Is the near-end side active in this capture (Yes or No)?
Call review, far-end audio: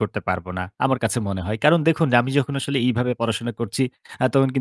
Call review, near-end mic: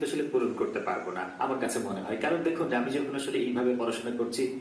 No